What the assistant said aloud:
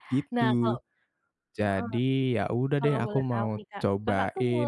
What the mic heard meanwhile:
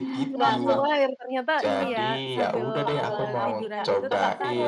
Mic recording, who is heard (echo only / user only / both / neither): both